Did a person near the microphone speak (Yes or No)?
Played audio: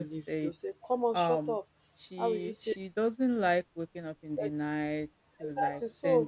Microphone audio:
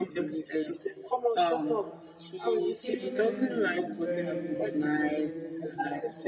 Yes